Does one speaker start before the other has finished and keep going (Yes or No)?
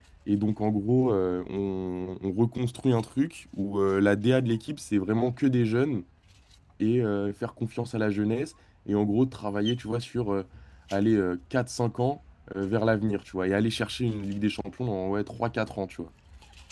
No